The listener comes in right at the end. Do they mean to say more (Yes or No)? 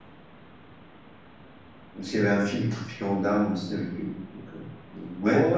Yes